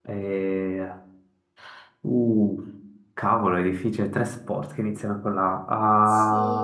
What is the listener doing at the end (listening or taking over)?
taking over